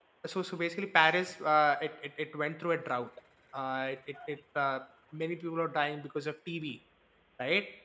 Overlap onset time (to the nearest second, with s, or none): none